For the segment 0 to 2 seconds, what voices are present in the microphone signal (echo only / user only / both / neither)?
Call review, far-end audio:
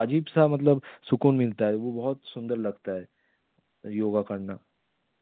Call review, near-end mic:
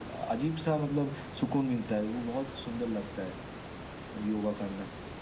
echo only